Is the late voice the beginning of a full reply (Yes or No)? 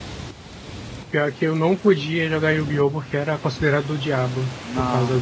No